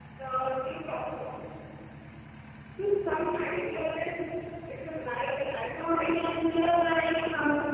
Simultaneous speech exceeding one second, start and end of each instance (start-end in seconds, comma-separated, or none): none